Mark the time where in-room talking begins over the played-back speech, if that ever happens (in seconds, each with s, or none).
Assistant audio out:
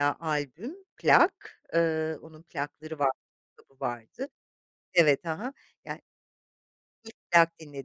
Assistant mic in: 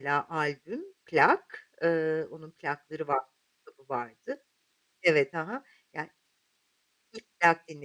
none